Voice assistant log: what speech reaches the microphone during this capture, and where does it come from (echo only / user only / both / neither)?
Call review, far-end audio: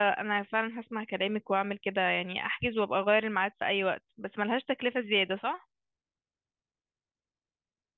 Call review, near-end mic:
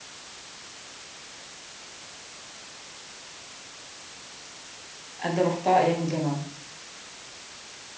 user only